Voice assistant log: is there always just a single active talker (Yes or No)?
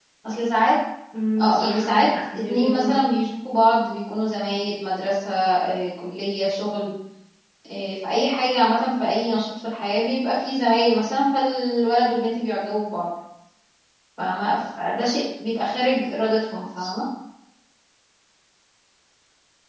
No